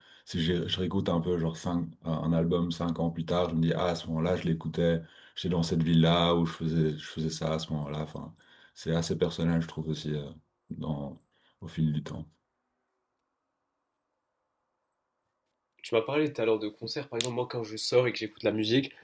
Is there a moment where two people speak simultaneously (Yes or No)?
No